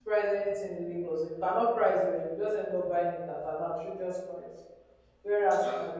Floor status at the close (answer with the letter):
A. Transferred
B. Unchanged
B